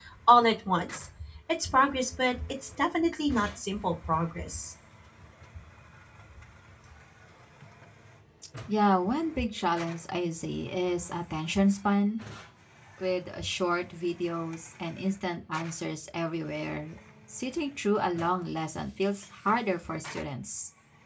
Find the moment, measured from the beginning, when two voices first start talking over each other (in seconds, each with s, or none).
none